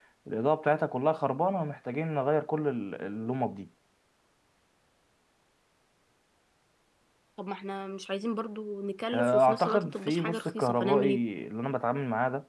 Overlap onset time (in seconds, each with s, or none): 9.1 s